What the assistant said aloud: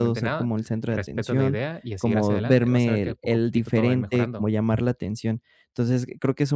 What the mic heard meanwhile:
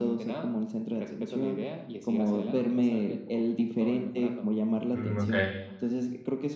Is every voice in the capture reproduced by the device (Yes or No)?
No